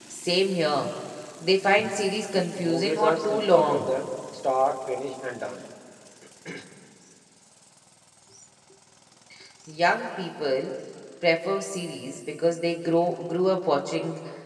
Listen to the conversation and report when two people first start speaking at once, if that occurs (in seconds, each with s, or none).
2.3 s